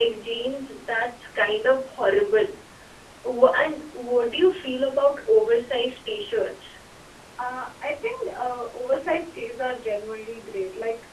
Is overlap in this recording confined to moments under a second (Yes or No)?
Yes